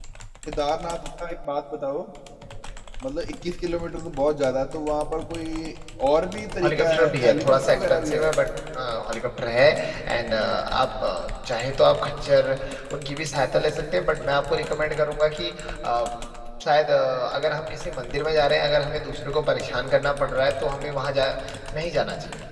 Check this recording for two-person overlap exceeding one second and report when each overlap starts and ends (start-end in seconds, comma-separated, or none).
6.6-8.2